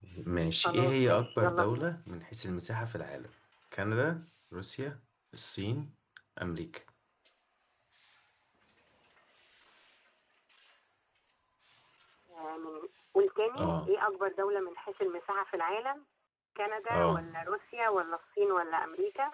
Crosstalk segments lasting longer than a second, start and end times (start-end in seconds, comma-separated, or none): 0.6-1.9